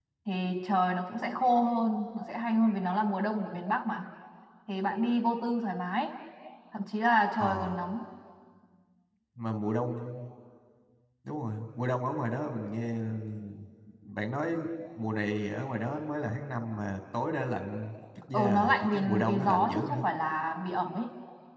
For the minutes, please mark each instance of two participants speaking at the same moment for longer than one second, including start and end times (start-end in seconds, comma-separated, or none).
18.3-20.0